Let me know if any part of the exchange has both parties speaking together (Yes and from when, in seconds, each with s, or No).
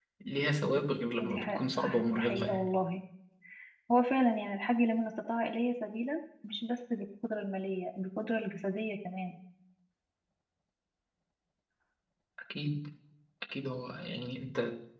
Yes, from 1.2 s